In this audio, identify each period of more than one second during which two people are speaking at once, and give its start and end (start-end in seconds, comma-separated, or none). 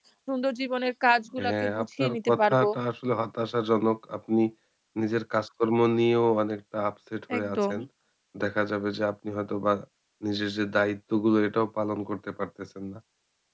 1.4-2.7